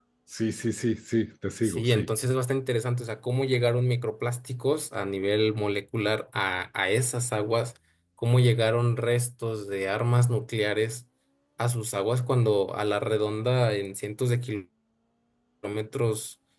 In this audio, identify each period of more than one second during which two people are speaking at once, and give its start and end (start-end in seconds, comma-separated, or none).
none